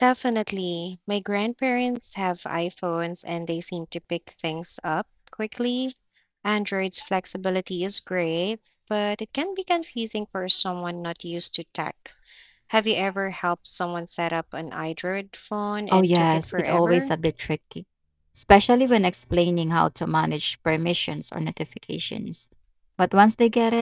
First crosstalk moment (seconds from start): 15.9 s

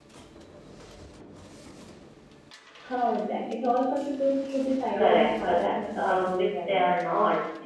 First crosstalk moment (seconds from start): 5.0 s

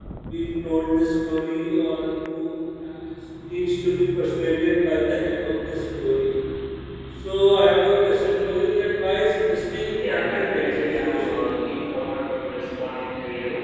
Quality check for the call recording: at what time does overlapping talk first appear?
10.0 s

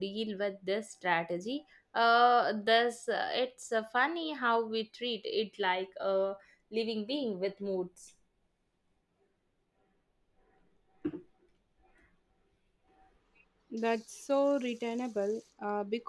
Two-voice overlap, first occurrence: none

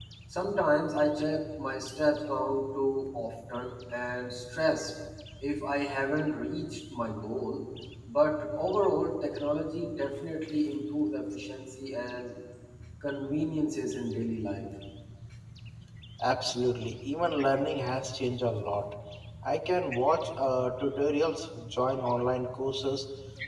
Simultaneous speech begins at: none

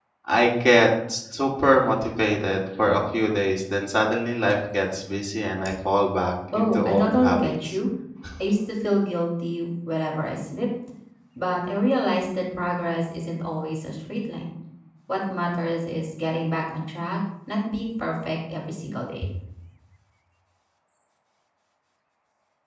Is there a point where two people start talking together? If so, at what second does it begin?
6.5 s

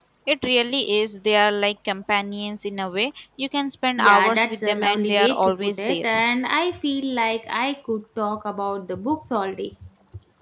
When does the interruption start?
4.0 s

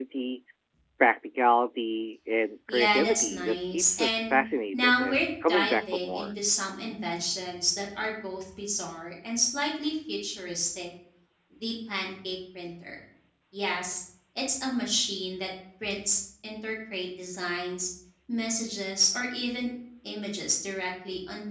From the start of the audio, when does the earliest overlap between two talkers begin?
2.7 s

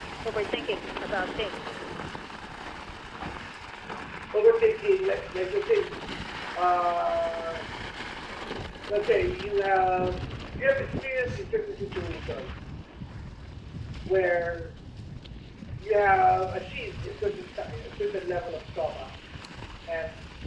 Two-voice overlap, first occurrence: none

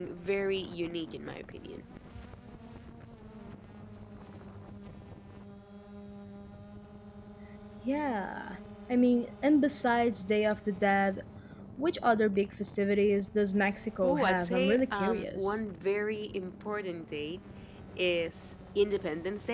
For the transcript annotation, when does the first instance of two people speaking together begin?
14.0 s

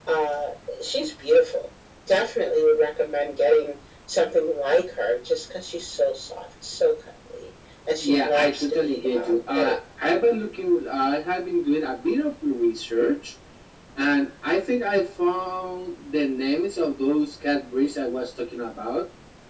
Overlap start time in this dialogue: 8.0 s

